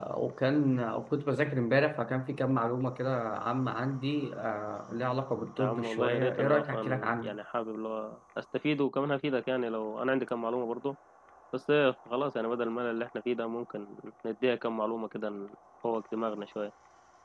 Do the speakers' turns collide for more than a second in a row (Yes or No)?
Yes